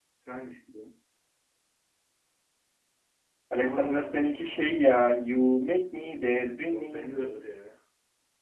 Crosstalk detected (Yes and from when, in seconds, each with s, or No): Yes, from 3.6 s